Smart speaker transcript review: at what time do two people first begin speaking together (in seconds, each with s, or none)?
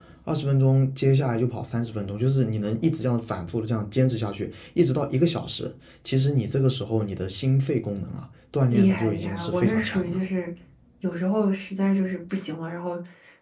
8.7 s